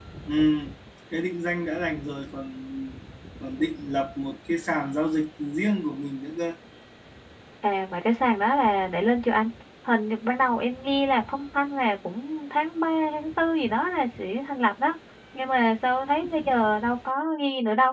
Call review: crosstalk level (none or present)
none